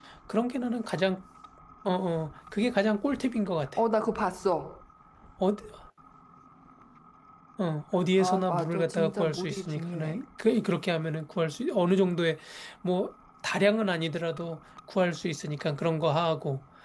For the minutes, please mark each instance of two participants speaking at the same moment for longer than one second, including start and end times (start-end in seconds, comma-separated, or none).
8.2-10.2